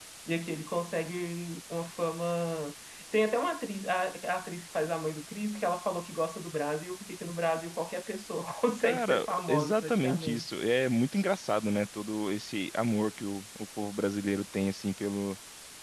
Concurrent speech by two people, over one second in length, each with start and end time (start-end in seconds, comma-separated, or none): 8.8-10.4